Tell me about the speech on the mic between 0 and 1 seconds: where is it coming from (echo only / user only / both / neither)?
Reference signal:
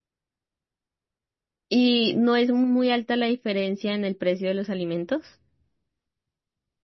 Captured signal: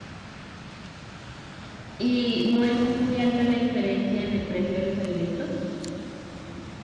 neither